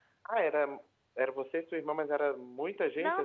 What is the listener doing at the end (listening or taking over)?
taking over